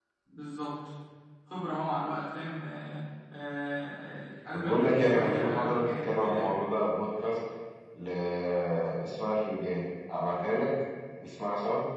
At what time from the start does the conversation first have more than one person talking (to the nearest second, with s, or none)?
5 s